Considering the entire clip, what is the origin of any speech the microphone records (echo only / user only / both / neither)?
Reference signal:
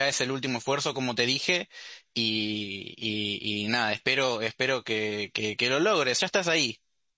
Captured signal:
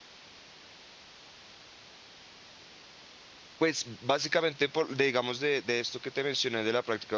user only